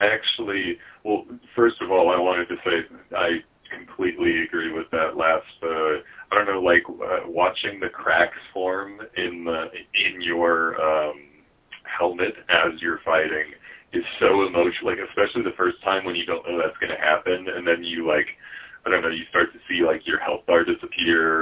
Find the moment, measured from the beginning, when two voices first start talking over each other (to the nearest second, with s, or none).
none